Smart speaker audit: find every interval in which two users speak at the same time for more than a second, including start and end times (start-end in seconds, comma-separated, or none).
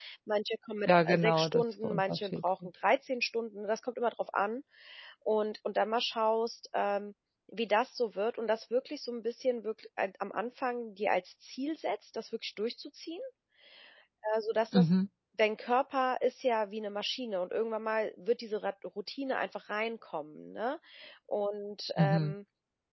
0.9-2.7